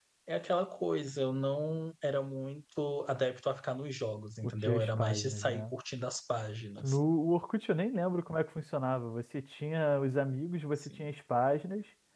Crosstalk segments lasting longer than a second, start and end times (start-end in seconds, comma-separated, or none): 4.4-5.7